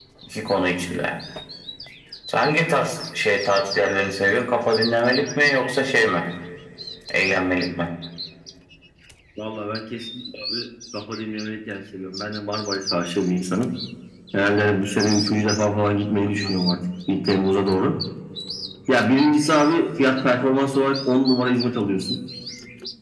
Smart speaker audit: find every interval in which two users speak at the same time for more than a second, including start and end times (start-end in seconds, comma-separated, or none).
none